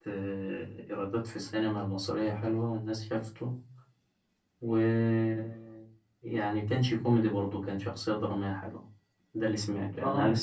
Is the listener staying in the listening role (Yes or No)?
No